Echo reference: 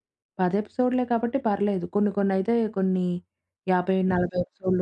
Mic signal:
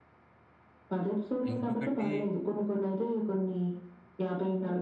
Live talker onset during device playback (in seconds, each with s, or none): 1.5 s